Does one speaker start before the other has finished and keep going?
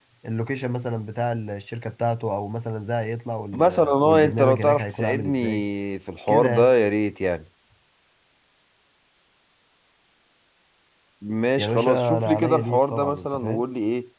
Yes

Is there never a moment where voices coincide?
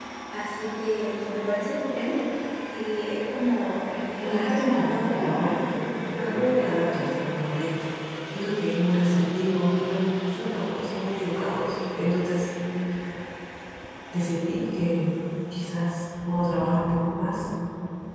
No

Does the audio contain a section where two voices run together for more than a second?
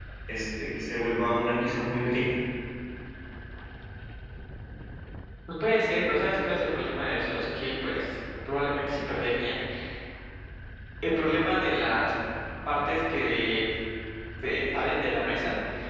No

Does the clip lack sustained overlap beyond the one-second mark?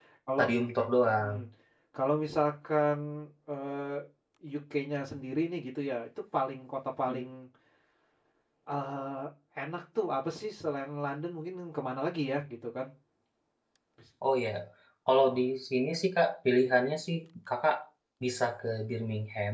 Yes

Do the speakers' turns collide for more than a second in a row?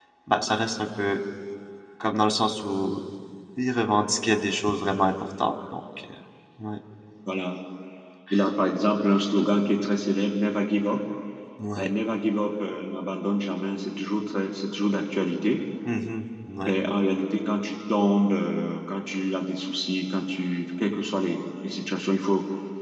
No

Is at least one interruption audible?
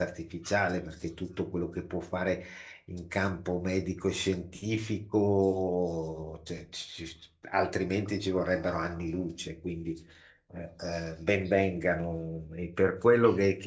No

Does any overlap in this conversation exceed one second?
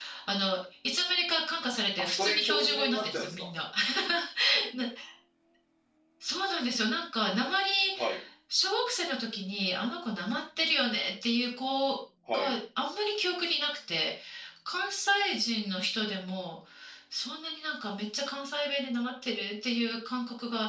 Yes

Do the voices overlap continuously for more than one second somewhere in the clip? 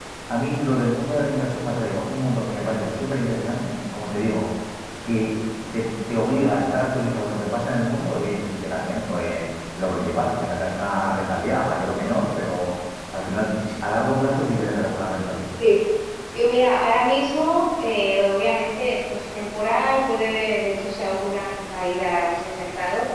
No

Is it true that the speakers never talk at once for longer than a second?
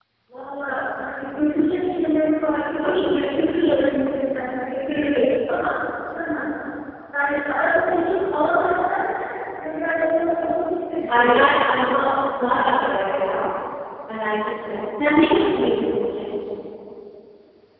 No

